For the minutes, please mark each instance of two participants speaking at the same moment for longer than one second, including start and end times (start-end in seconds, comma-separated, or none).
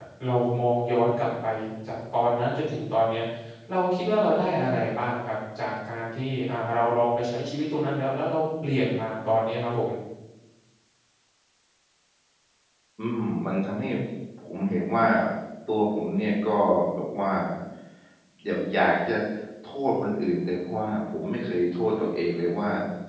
none